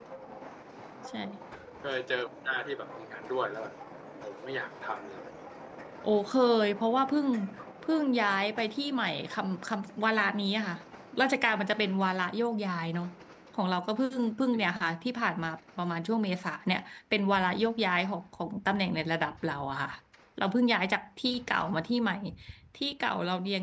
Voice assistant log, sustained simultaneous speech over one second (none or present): none